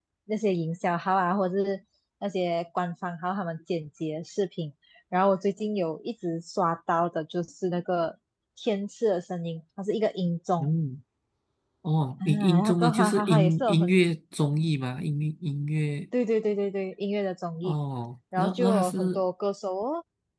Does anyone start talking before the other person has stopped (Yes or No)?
Yes